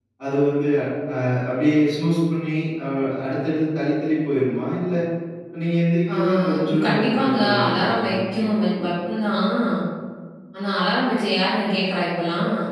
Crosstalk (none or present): present